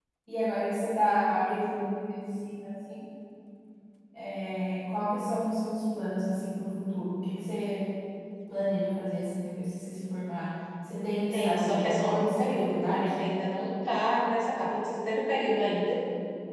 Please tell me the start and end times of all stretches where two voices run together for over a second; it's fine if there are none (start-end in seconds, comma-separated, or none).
11.3-13.1